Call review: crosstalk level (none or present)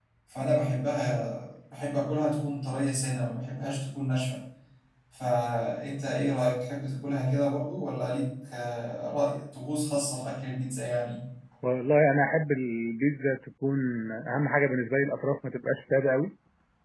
none